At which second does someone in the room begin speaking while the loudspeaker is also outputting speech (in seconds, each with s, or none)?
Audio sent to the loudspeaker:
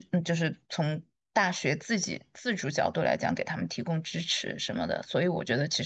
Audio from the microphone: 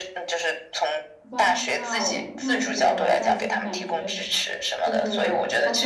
1.3 s